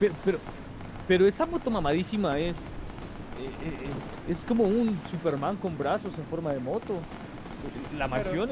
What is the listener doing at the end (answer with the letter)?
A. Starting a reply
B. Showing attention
B